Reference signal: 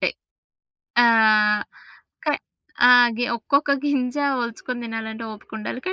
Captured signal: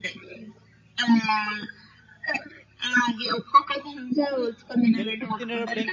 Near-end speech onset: 5.0 s

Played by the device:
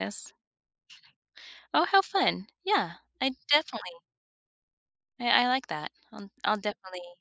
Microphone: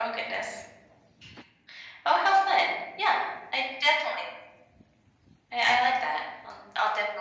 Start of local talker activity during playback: none

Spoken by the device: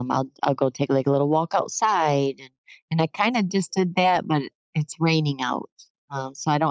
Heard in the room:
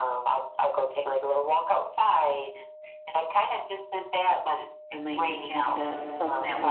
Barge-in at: 4.9 s

